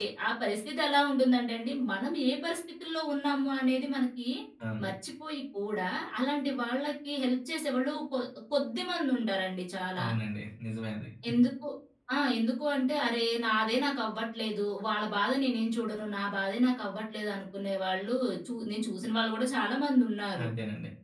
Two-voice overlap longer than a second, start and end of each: none

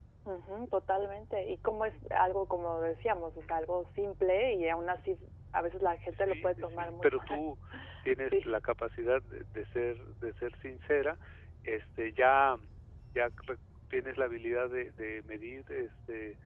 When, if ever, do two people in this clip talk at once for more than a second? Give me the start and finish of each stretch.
6.1-7.4

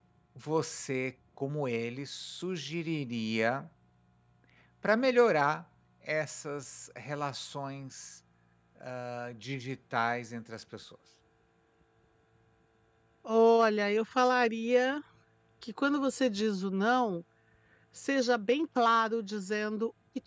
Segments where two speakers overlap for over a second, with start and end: none

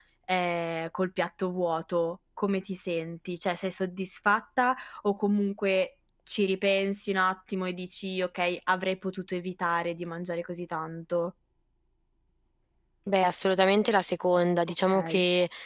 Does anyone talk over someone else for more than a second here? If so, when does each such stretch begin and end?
none

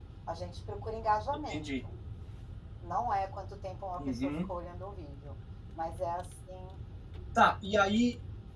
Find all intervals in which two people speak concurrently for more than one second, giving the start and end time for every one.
none

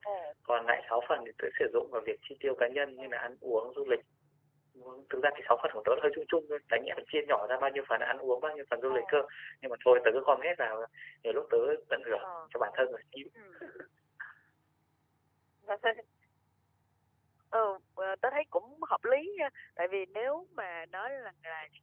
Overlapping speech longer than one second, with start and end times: none

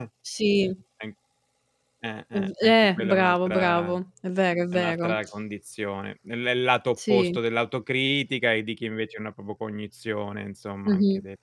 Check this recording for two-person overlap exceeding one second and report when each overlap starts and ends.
2.3-3.9

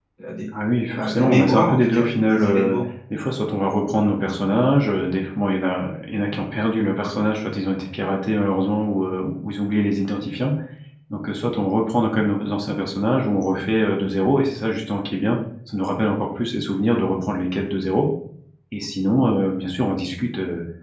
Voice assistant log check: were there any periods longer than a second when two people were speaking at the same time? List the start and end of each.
1.0-2.8

